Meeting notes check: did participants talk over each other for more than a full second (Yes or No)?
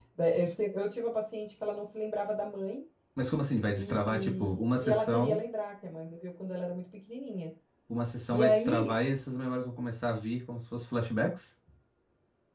Yes